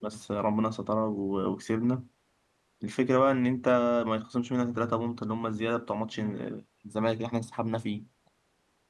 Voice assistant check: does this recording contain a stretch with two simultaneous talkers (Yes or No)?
No